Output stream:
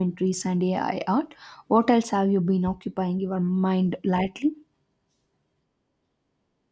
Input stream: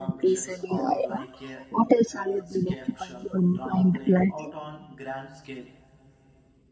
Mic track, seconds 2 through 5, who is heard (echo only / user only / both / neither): both